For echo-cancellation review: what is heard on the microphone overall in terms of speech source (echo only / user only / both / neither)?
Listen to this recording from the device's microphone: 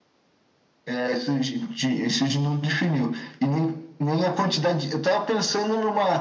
echo only